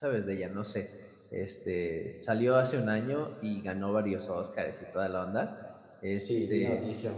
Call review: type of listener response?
taking over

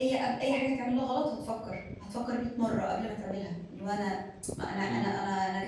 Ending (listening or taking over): listening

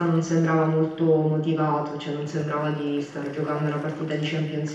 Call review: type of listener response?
listening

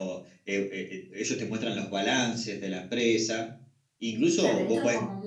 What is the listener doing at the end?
taking over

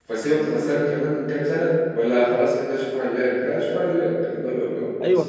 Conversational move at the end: taking over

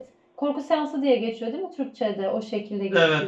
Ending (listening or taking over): listening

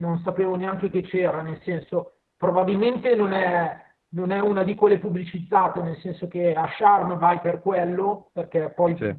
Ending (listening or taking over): listening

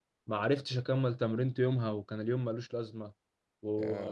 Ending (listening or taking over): listening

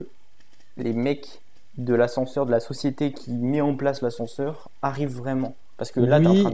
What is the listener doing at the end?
taking over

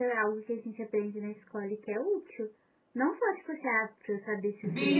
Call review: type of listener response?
taking over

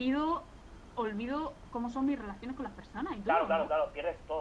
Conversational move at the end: taking over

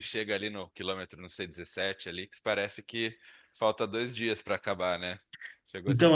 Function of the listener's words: taking over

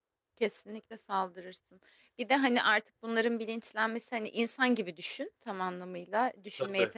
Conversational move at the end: listening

